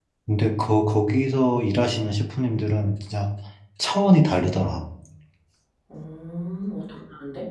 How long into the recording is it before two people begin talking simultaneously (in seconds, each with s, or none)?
none